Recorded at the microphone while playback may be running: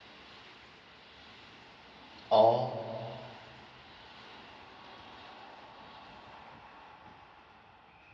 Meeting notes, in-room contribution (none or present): present